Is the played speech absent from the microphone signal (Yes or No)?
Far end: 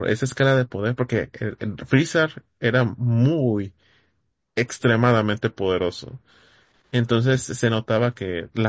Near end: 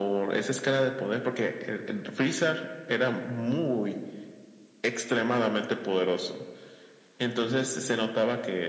No